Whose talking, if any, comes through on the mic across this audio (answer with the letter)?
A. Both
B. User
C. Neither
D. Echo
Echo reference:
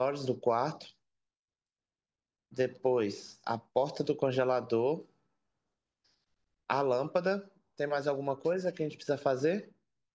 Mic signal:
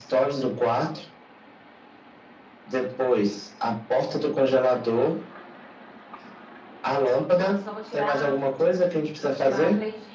A